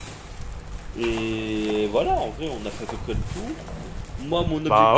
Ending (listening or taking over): listening